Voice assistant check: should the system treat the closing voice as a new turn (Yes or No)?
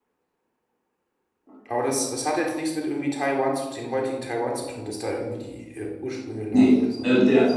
Yes